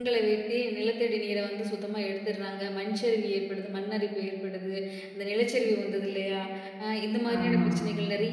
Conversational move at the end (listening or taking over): listening